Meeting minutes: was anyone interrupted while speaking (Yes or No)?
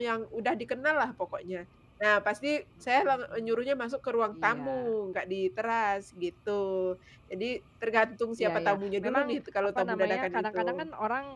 Yes